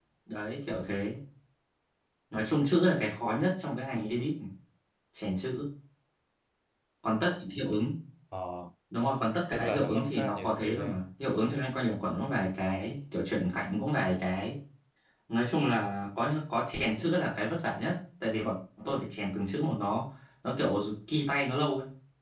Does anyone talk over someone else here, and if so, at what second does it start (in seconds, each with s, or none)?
9.5 s